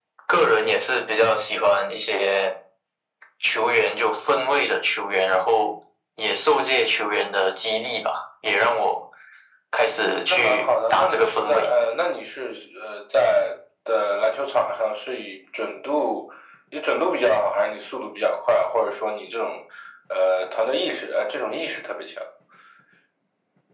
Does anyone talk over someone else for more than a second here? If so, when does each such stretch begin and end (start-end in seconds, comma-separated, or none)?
10.3-11.7